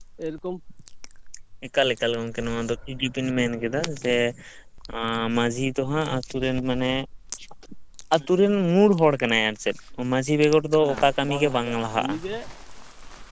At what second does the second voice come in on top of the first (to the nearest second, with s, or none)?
11 s